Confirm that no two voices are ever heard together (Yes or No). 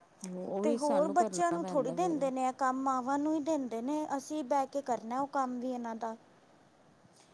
No